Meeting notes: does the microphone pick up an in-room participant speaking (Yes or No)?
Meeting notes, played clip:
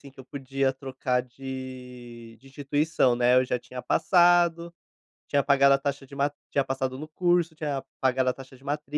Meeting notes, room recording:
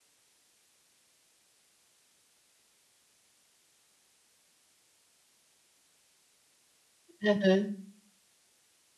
Yes